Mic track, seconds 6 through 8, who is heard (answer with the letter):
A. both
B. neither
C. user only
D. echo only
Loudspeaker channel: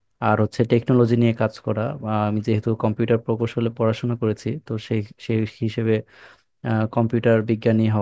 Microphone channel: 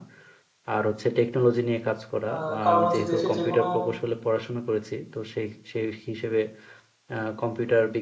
D